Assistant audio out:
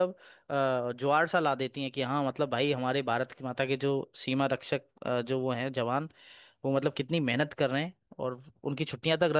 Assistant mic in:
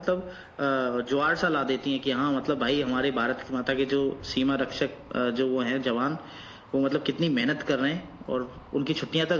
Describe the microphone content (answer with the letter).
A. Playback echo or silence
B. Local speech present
A